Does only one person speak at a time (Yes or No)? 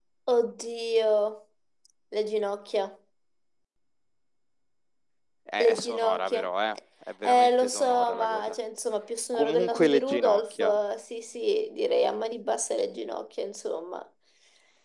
No